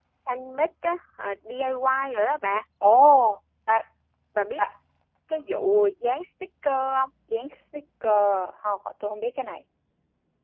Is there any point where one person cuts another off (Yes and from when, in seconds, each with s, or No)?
No